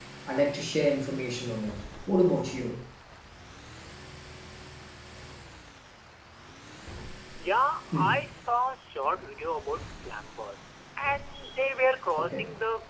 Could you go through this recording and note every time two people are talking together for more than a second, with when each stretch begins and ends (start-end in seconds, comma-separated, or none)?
none